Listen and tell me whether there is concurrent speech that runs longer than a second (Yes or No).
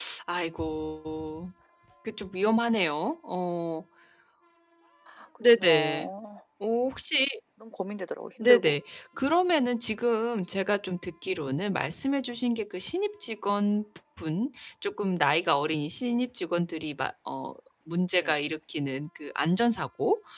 No